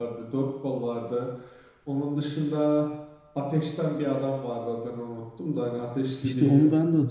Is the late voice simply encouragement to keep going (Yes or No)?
No